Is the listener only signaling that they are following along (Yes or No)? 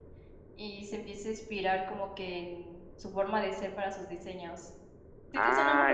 No